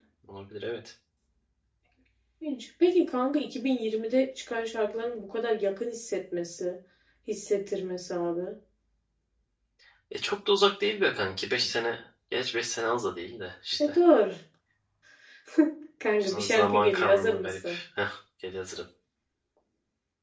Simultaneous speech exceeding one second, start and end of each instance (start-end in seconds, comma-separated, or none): 16.3-17.8